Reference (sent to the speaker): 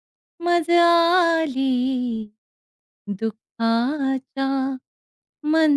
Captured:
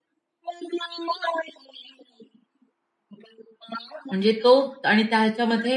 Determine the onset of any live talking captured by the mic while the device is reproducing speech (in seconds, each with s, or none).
4.1 s